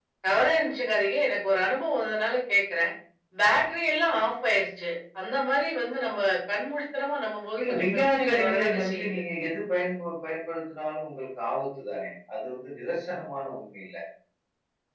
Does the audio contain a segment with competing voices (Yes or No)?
Yes